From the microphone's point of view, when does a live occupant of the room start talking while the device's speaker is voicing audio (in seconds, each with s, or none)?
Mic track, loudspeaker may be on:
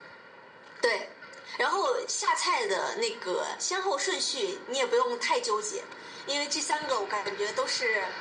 none